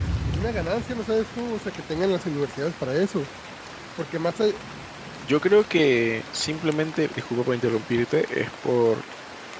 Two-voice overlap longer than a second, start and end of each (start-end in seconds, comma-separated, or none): none